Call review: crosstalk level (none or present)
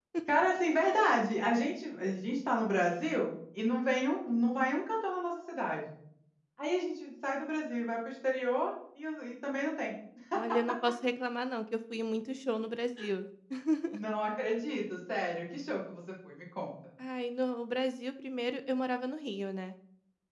none